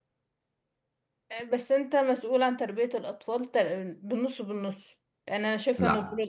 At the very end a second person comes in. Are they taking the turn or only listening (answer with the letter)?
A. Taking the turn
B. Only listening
A